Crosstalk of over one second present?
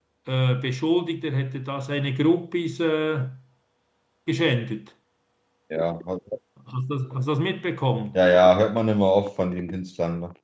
No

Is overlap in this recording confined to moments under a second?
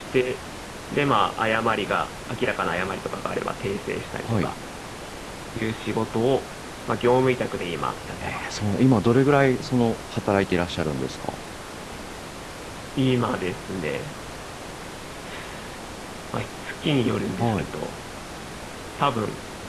Yes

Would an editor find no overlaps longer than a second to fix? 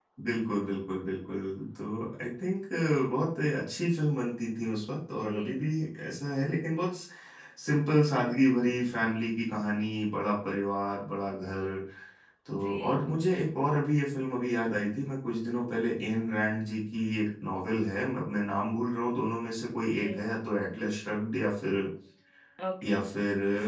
Yes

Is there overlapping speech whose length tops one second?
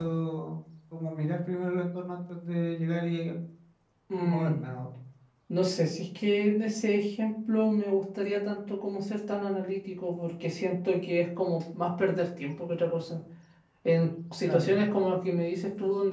No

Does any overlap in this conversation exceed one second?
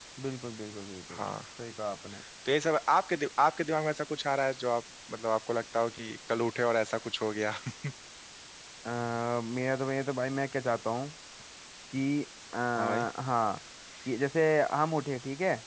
No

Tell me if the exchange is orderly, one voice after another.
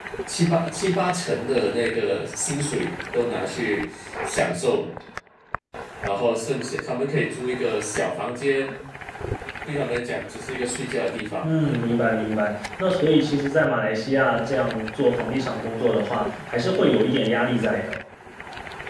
Yes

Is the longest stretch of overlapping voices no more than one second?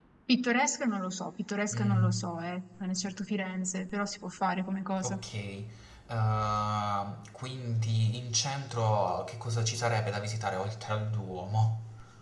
Yes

